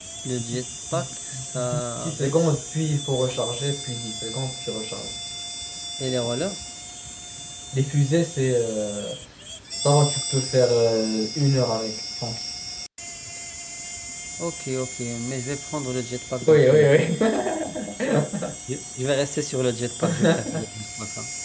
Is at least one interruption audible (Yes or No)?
Yes